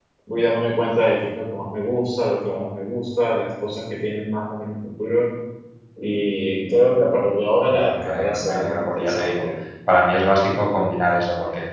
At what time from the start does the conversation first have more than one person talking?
7.7 s

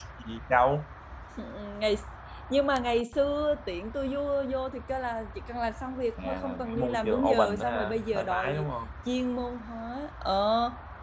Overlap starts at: 6.2 s

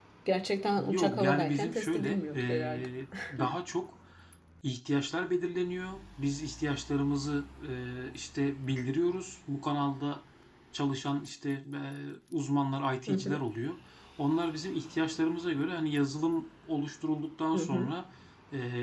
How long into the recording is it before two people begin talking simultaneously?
0.8 s

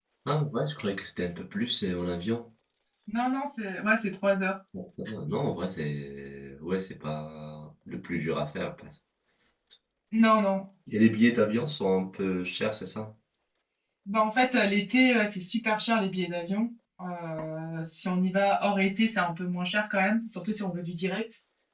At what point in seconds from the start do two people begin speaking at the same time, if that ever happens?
none

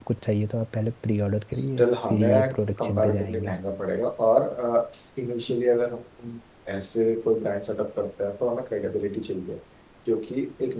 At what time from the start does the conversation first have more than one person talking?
1.5 s

